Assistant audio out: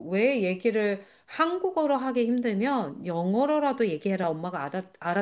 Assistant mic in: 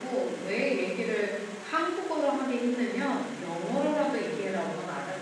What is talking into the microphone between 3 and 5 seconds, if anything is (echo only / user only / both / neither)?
echo only